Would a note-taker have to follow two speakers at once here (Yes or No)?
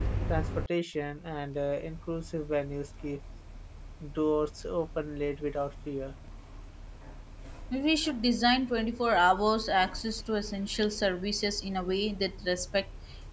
No